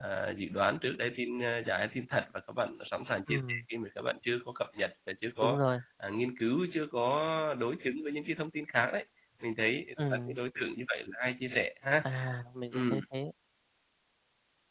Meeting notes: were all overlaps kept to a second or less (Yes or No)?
Yes